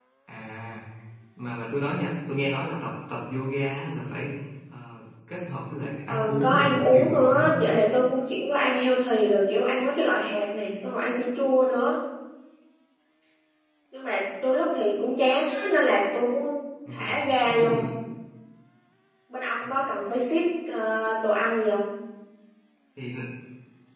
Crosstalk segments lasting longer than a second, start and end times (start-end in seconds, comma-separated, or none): 6.1-7.6